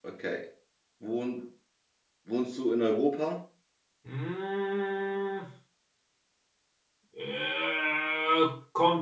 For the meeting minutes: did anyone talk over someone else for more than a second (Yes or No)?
No